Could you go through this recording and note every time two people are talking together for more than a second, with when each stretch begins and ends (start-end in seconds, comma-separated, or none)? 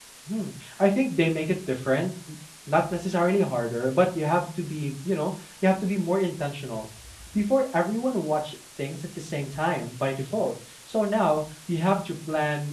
none